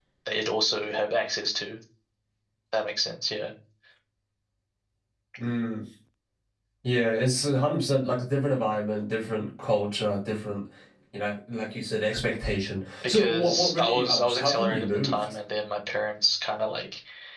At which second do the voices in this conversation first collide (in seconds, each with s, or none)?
13.0 s